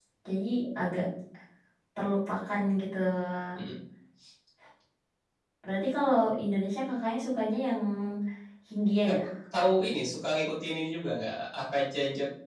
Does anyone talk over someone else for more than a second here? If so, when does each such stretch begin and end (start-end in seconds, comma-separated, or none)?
none